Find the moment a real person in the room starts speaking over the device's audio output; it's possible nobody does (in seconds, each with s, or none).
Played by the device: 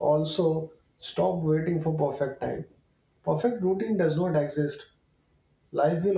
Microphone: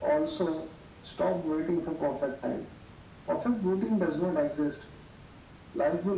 none